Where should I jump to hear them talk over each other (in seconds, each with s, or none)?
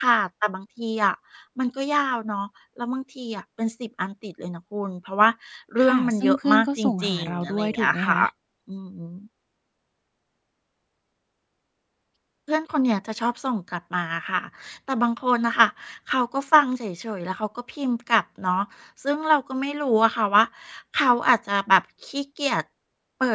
5.8 s